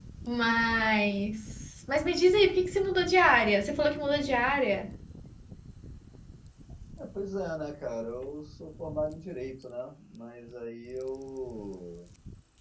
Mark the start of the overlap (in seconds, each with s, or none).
none